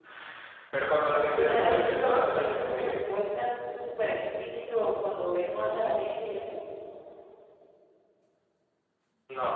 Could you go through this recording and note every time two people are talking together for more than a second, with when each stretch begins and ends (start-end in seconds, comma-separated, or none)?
1.4-3.0